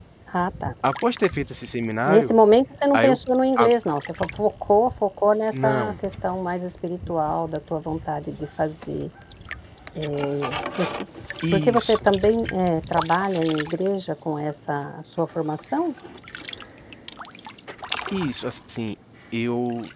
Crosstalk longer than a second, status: none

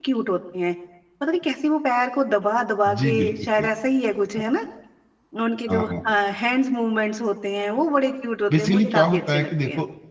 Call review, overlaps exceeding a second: present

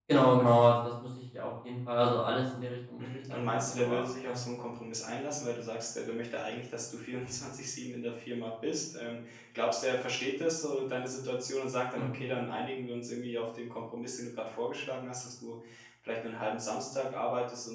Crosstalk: present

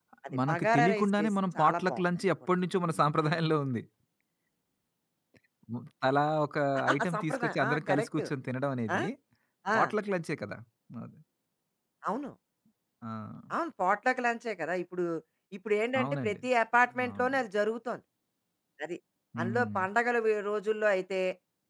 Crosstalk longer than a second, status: present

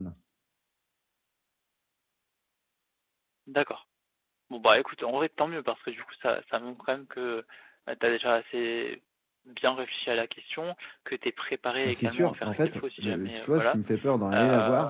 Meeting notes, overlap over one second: present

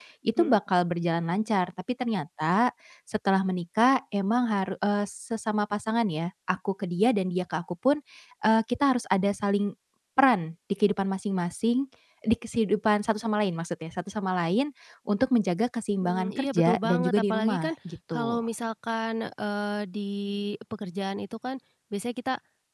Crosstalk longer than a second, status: present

